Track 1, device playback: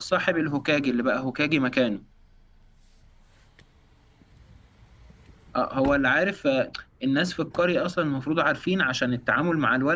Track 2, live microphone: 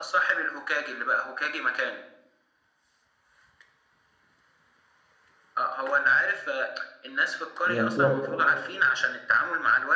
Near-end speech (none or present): present